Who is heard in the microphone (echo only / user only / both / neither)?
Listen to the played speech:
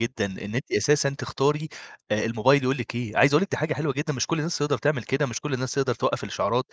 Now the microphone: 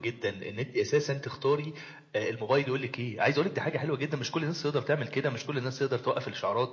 echo only